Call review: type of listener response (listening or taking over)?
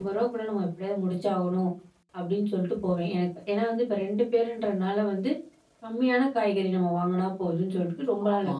listening